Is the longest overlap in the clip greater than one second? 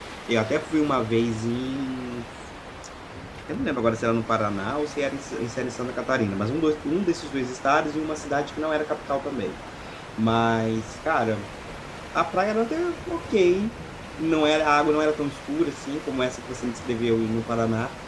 No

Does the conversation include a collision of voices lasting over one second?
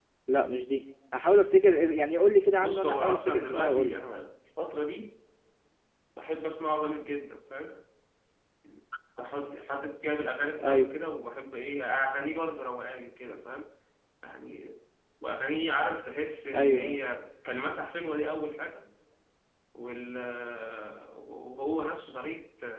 Yes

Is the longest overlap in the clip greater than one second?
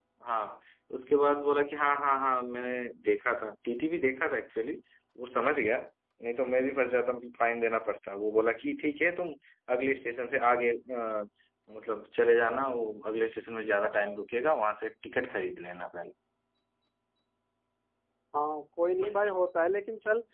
No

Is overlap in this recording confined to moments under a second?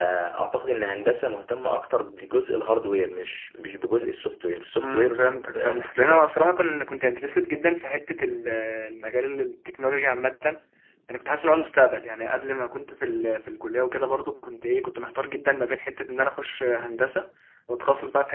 No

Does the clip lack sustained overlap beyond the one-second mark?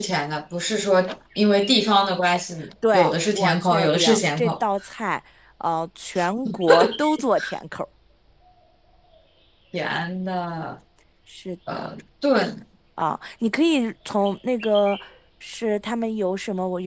No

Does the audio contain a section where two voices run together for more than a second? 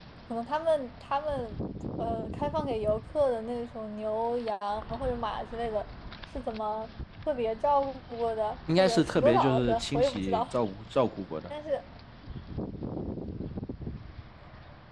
Yes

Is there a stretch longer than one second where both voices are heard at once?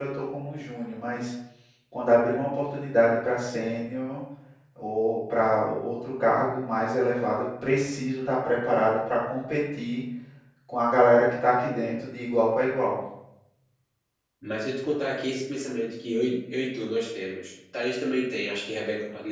No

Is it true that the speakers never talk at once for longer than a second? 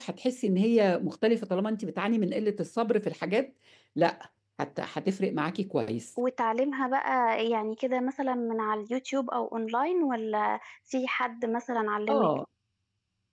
Yes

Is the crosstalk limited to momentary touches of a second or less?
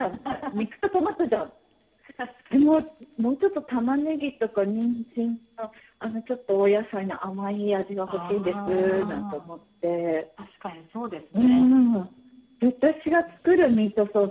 No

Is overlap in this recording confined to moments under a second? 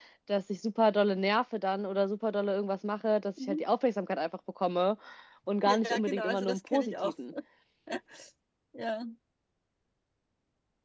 No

